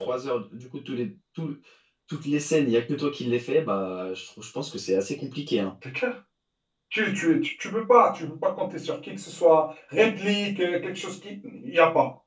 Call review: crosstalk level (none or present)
none